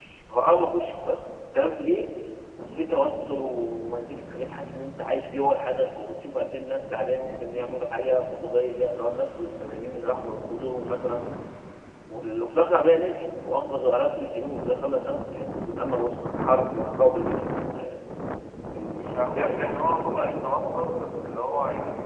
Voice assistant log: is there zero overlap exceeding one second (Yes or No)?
No